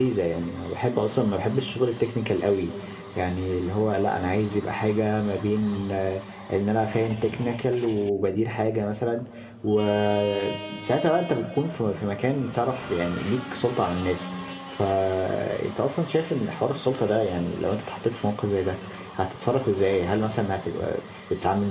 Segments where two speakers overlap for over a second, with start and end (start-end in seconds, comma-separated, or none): none